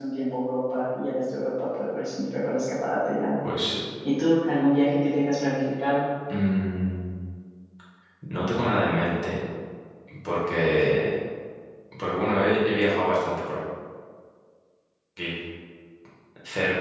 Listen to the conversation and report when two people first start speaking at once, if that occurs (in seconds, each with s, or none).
none